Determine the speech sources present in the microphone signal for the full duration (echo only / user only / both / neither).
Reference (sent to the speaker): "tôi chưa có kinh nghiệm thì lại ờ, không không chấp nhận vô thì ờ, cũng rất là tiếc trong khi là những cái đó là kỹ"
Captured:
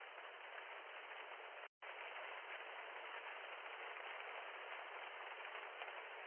neither